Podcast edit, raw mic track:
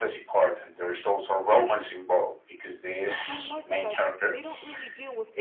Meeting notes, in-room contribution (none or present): present